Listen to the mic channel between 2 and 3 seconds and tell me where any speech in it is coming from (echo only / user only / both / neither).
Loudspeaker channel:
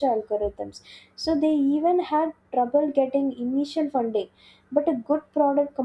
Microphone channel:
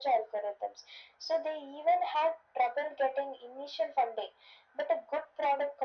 echo only